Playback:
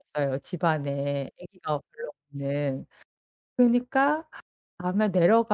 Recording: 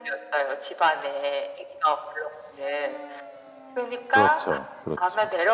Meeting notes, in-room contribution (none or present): present